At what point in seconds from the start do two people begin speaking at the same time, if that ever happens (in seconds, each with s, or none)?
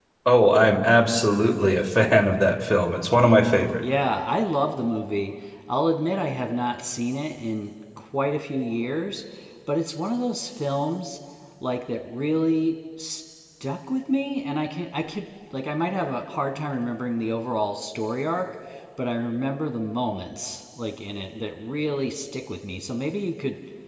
none